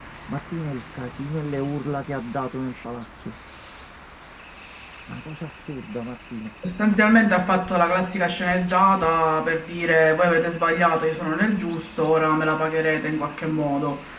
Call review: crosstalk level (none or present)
none